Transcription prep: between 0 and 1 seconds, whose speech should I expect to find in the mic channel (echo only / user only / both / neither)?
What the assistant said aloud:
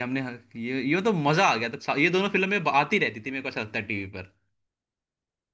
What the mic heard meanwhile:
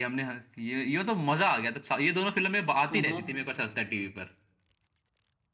echo only